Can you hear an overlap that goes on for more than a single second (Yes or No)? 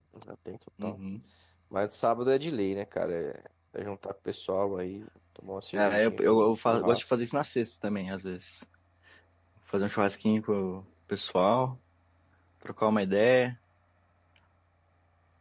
Yes